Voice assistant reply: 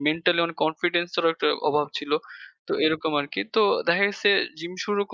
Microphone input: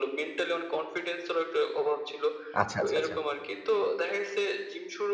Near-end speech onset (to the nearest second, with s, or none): 3 s